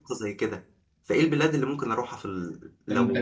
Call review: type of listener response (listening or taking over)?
taking over